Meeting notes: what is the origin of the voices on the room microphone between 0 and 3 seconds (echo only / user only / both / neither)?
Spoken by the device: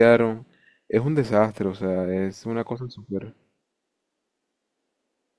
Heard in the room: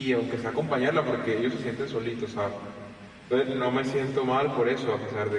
user only